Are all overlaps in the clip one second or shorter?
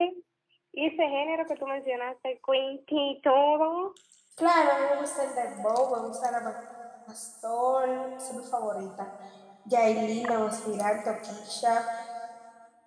Yes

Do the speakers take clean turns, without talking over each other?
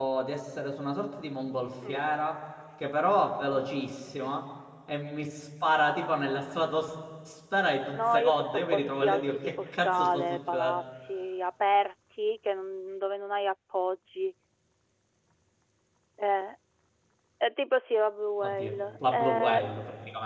No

